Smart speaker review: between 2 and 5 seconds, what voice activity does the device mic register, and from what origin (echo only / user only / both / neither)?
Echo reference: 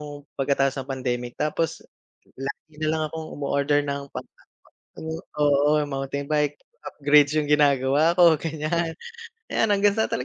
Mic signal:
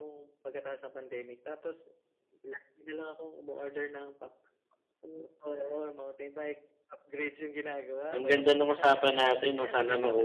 echo only